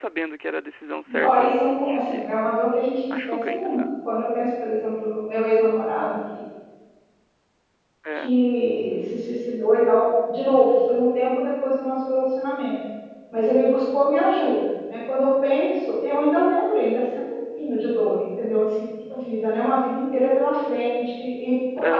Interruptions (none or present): present